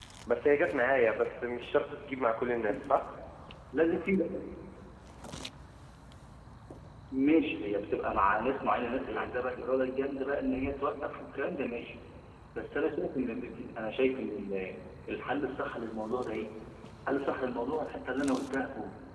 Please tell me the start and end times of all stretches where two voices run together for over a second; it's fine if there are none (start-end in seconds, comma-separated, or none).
none